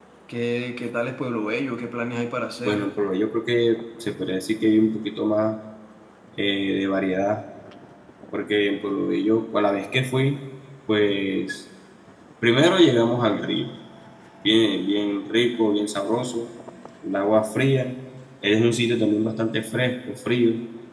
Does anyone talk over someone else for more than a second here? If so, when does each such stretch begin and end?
none

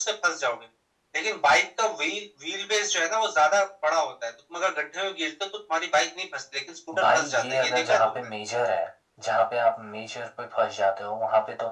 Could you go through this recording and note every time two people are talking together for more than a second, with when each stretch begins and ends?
7.0-8.3

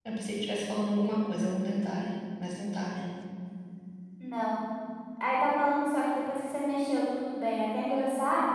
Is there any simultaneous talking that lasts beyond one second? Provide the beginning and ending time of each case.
none

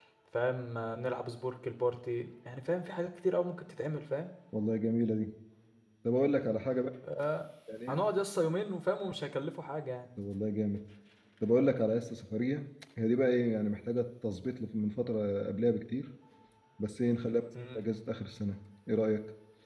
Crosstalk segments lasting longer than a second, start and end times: none

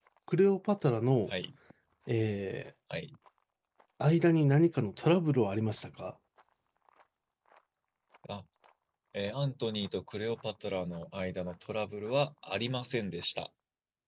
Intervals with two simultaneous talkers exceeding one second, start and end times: none

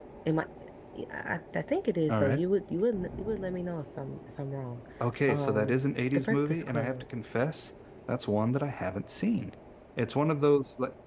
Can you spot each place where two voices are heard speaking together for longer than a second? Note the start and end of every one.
5.3-7.0

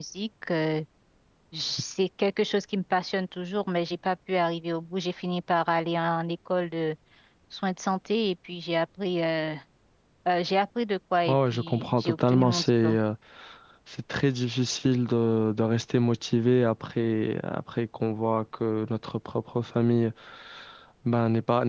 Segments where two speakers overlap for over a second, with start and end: 11.3-13.0

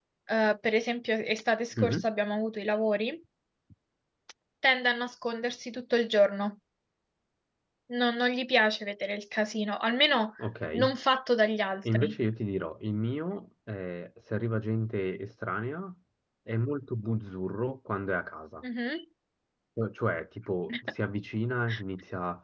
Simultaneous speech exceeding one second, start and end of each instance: none

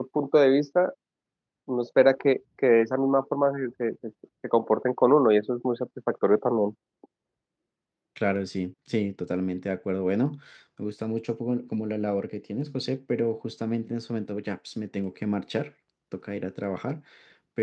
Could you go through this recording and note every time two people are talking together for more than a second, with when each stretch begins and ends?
none

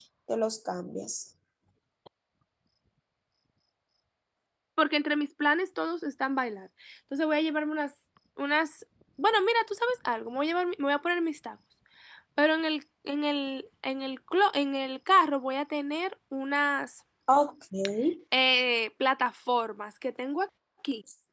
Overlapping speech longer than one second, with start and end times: none

